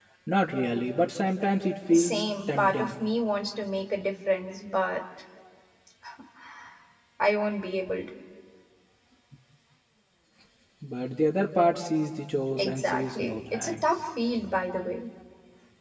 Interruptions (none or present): present